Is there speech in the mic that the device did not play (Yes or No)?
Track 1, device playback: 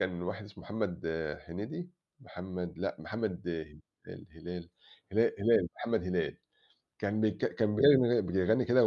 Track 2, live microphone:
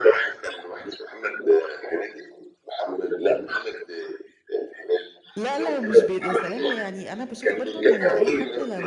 Yes